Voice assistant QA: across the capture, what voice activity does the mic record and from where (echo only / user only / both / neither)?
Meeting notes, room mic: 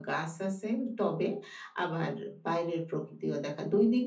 echo only